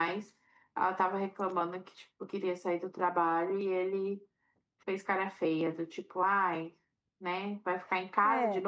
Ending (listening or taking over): listening